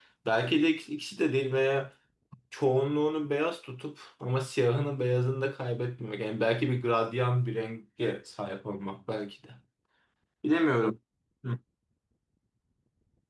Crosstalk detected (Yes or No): No